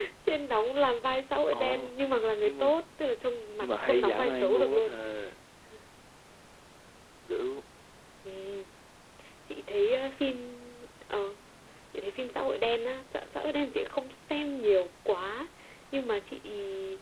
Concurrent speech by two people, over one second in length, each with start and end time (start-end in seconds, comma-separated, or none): 3.6-4.9